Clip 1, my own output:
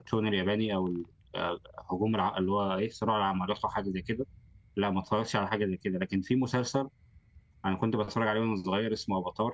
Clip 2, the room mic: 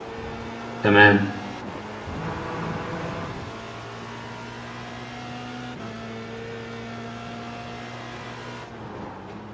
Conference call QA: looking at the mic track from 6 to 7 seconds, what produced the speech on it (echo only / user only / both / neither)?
neither